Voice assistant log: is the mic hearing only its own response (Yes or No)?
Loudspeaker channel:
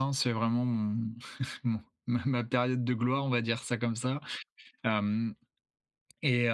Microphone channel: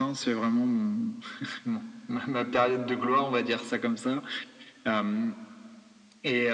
Yes